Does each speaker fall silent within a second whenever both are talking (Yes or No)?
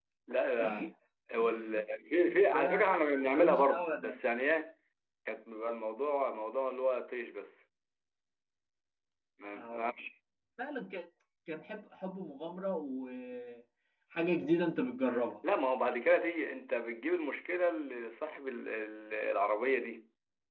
No